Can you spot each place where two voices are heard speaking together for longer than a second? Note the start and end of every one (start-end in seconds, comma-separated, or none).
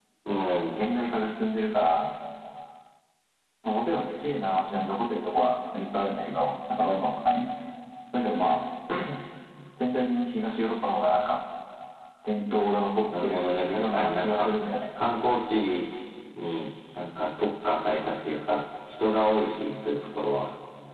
13.2-14.5